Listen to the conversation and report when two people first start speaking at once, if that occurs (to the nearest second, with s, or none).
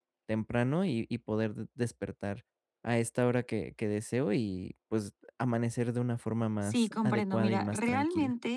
7 s